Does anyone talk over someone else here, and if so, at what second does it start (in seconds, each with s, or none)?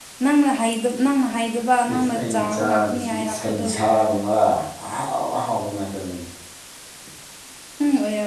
1.9 s